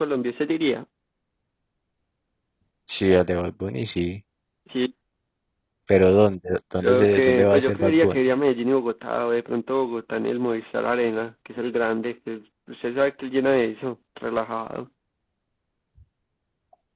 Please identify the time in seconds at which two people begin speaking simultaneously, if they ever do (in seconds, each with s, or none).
6.8 s